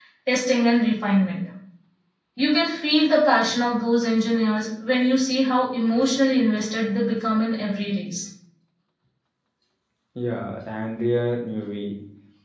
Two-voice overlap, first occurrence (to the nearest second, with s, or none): none